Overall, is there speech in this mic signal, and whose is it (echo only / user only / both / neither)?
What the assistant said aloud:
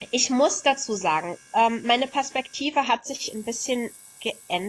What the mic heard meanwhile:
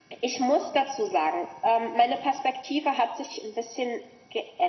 echo only